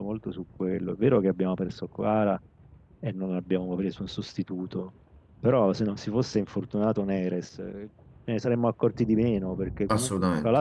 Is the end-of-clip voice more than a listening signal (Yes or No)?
No